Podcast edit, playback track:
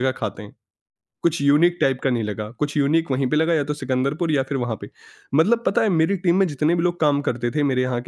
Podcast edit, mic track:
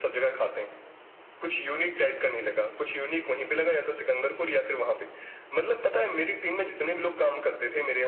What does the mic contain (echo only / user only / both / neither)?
echo only